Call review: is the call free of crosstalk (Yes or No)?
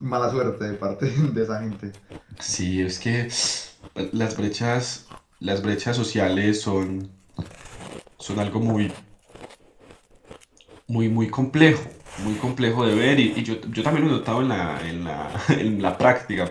Yes